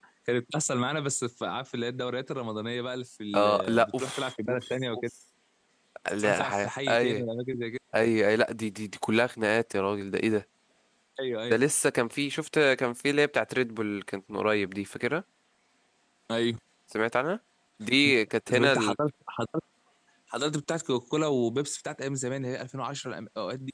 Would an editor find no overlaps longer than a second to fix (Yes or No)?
No